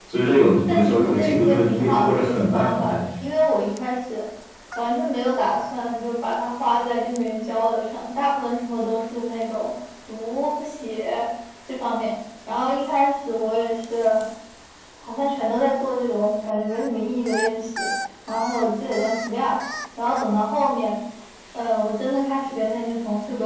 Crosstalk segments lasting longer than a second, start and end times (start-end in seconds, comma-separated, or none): 0.7-3.0